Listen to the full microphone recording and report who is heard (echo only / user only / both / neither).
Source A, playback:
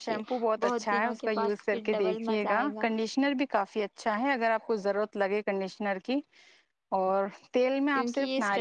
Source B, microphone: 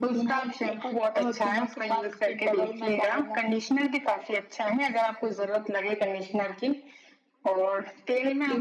echo only